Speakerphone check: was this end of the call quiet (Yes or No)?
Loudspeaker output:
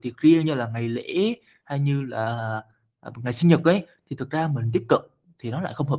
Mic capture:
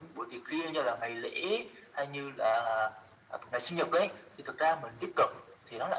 Yes